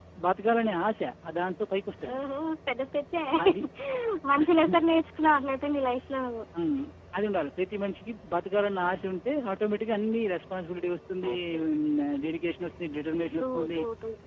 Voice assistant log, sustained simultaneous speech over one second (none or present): none